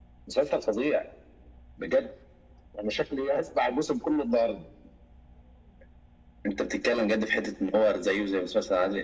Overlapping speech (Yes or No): No